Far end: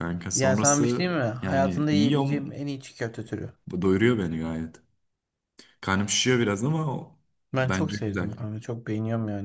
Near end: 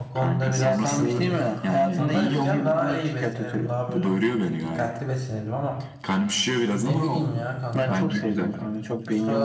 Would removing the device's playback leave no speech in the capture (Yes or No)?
No